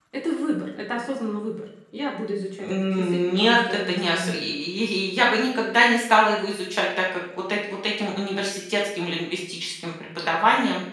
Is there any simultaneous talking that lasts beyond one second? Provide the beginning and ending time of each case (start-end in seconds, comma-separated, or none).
2.6-4.4